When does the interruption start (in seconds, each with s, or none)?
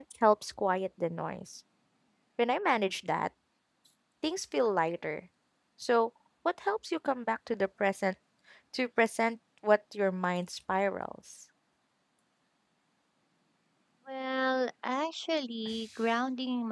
none